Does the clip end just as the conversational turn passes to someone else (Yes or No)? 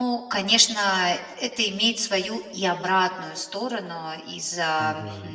No